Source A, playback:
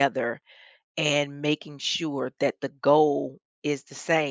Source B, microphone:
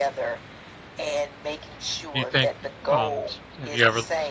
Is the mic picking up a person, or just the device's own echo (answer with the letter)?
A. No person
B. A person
B